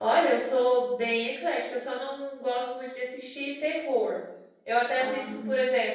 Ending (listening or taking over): listening